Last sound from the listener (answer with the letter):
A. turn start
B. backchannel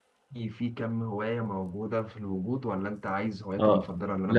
A